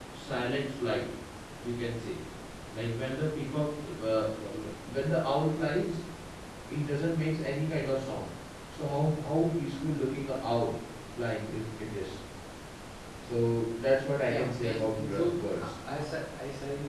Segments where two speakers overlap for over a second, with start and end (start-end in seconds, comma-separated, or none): 14.3-15.7